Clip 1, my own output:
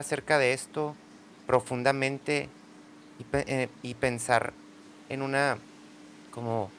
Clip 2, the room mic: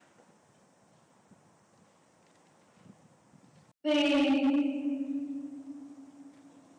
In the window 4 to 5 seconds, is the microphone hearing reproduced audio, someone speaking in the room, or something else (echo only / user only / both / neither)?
user only